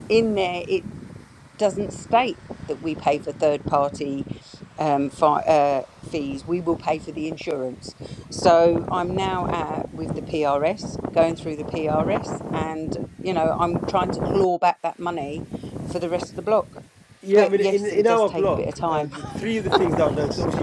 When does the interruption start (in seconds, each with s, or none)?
17.4 s